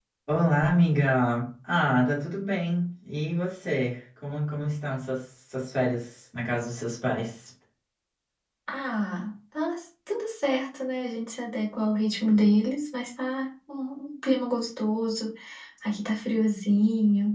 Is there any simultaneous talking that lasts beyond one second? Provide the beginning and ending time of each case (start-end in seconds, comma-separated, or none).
none